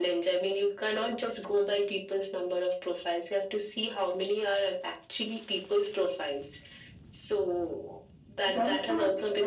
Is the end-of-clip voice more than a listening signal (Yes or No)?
Yes